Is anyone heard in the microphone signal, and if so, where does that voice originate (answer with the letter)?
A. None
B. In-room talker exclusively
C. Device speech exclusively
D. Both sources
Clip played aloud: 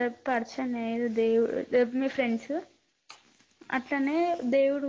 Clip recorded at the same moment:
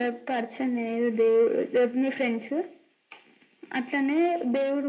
C